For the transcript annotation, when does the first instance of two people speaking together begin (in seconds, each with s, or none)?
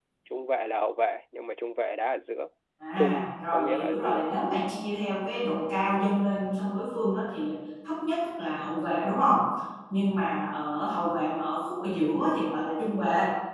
3.0 s